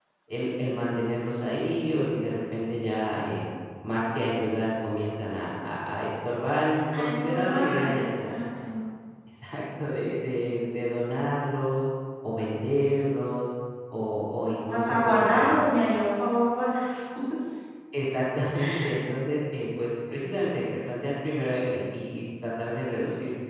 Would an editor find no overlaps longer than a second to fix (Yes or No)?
No